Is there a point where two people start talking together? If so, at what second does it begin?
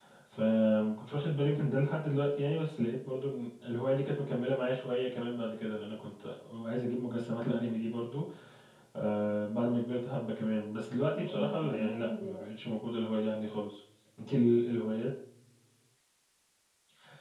11 s

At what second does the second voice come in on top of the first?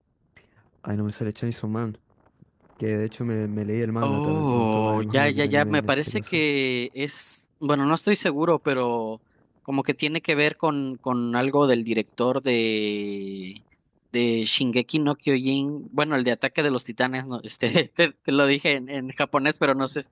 4 s

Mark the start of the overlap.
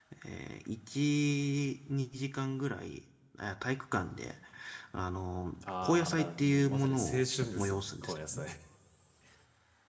6 s

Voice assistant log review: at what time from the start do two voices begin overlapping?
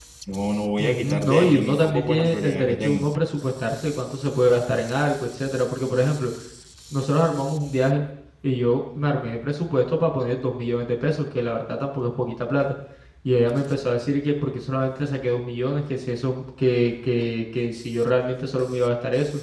1 s

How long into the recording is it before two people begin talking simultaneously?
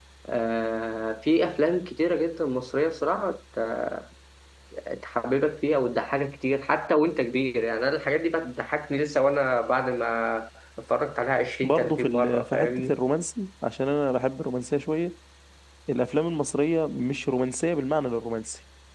12 s

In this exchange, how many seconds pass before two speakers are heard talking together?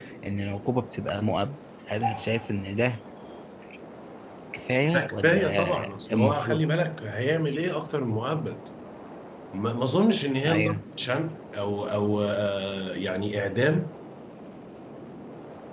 5 s

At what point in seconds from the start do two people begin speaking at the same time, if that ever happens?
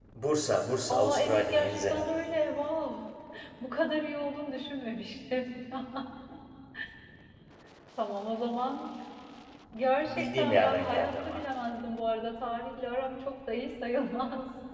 1 s

